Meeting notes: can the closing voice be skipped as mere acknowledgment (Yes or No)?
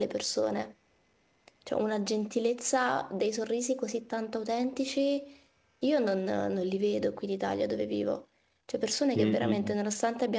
Yes